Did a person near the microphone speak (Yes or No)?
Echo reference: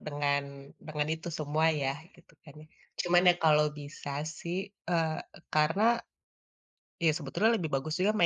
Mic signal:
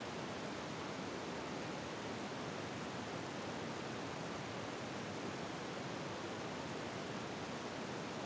No